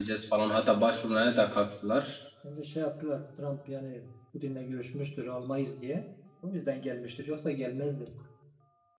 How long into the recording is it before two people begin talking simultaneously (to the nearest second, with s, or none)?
none